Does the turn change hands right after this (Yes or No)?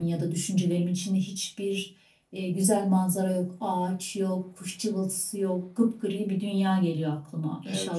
Yes